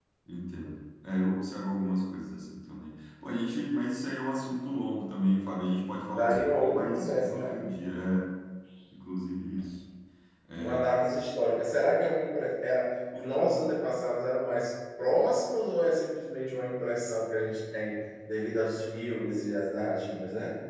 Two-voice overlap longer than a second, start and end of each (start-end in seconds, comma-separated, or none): 6.2-7.5